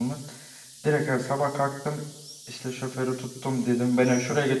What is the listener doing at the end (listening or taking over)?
listening